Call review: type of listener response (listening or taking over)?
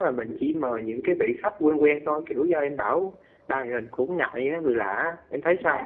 taking over